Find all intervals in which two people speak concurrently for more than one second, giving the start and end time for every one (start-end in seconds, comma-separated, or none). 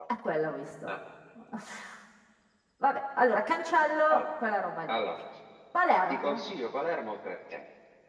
none